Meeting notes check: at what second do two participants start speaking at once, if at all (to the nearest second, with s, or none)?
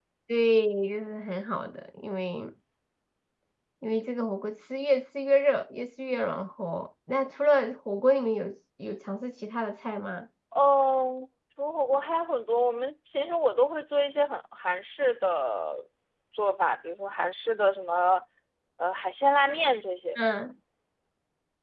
none